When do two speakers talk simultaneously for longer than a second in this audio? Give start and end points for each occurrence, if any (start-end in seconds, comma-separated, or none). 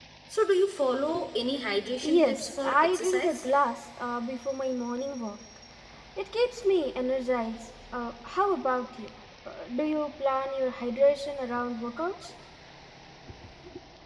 2.0-3.5